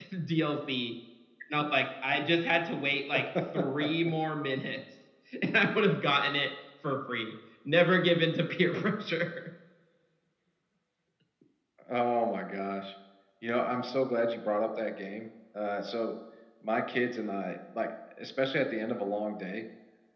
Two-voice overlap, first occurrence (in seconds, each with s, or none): none